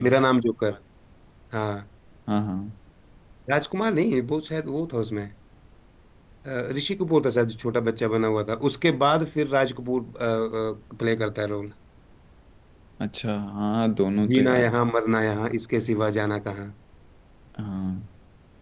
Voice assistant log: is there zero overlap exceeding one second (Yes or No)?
Yes